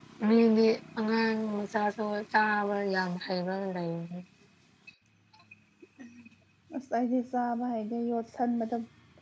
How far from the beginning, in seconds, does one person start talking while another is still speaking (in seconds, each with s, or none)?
none